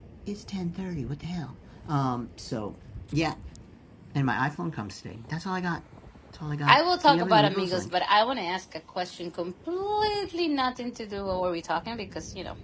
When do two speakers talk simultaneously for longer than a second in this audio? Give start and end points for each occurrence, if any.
6.7-7.9

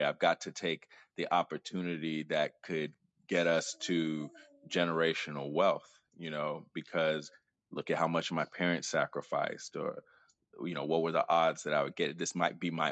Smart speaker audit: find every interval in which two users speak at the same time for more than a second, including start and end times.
none

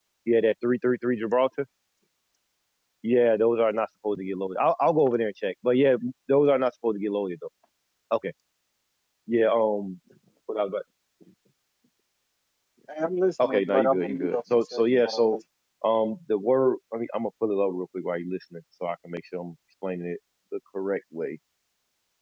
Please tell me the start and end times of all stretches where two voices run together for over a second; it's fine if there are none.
13.5-15.4

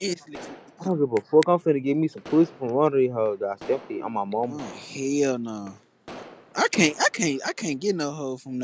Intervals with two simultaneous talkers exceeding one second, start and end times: none

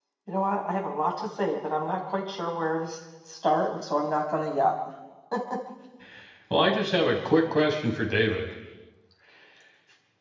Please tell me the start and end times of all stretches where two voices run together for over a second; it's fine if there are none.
none

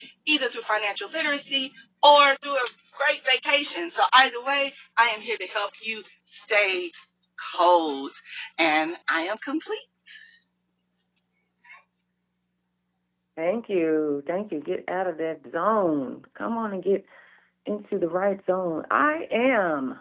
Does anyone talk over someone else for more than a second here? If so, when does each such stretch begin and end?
none

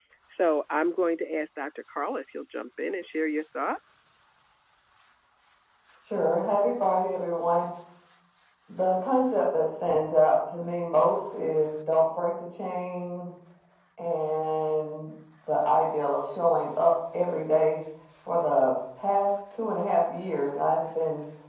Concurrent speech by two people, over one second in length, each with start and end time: none

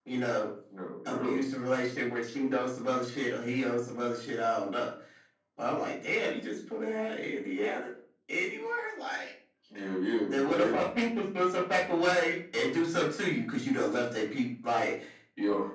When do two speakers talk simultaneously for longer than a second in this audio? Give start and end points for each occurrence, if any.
none

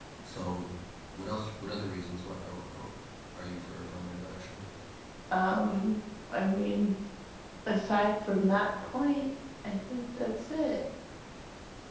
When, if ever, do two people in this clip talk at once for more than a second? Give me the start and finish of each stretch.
none

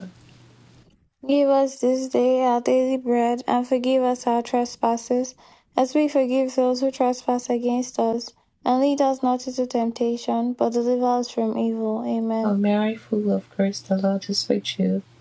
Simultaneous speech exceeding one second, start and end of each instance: none

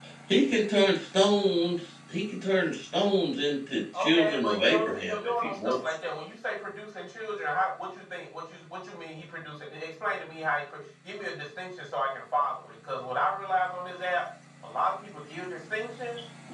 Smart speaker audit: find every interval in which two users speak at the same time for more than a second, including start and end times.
4.0-5.8

